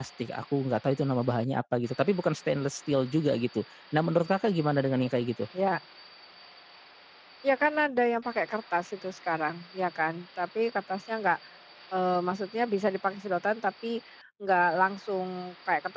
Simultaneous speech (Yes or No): No